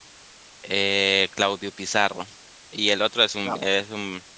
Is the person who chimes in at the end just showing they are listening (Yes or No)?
Yes